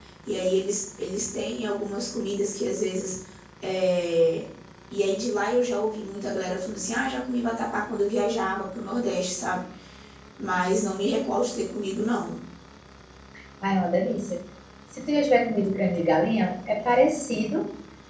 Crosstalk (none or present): none